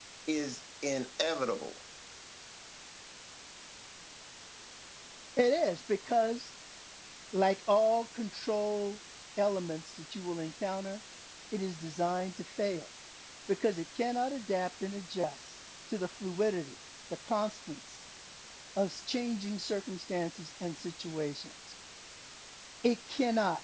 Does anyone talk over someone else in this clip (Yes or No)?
No